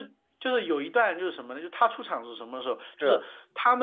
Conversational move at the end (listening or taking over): listening